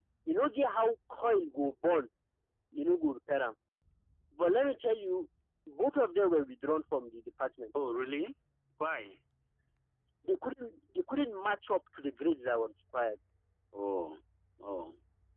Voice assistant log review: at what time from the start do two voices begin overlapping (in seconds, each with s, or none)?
none